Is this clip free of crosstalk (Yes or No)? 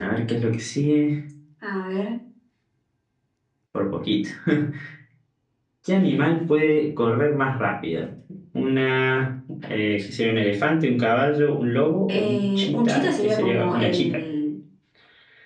No